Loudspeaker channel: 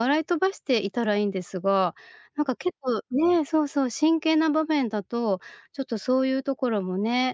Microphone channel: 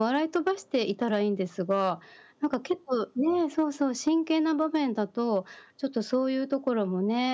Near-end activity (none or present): none